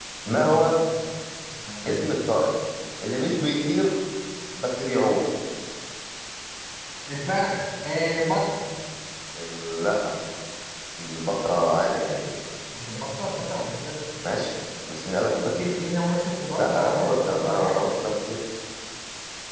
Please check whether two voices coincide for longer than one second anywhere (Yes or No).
Yes